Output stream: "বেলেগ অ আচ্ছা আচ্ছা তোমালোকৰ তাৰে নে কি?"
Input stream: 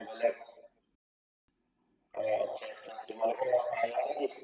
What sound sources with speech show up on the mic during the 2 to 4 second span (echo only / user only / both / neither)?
echo only